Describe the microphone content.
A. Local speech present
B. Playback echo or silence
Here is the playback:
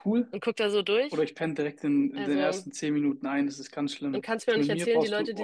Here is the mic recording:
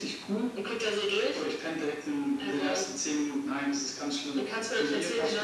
B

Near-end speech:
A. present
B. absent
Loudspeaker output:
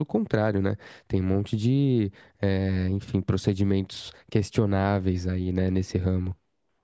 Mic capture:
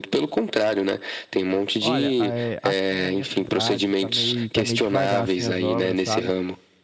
A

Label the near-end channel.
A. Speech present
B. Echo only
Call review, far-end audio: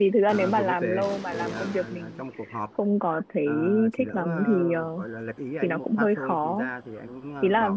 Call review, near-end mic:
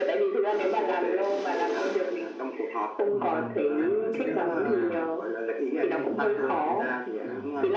A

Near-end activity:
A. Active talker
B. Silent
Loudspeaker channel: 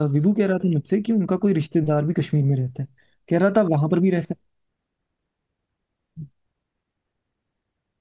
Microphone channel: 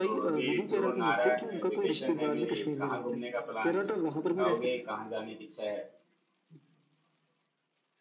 A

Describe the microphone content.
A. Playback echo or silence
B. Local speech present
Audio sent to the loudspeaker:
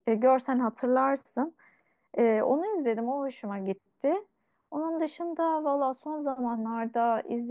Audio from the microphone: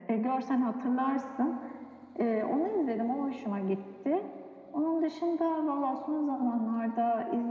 A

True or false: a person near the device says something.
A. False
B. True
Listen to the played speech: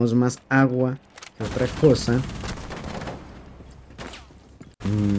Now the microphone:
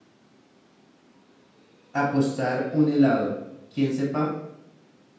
B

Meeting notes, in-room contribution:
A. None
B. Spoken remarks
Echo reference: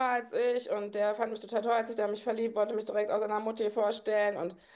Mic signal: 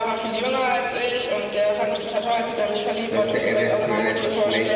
B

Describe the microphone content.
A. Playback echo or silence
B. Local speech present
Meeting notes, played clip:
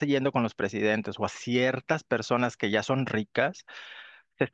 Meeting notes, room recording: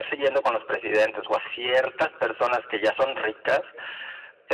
A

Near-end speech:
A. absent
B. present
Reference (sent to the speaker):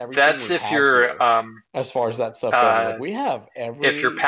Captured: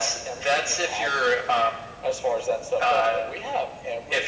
A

